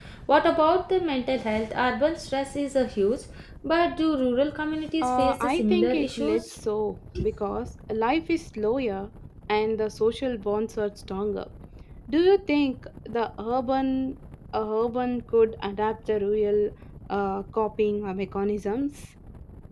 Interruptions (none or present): present